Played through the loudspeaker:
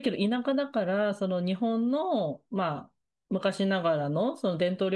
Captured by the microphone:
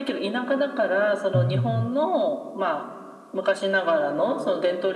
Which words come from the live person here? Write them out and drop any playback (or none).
うん